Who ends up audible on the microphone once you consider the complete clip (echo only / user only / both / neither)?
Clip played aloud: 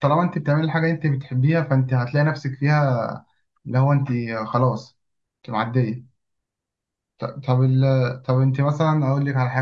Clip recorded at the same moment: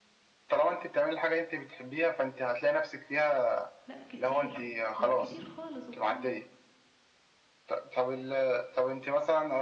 both